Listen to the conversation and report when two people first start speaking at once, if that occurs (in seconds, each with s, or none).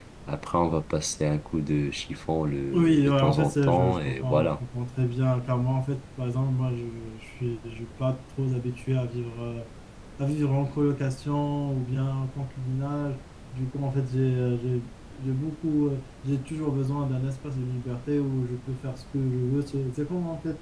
2.7 s